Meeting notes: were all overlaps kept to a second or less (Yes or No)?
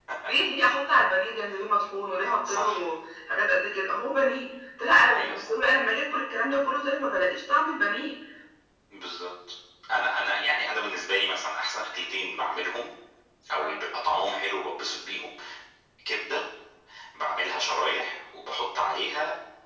Yes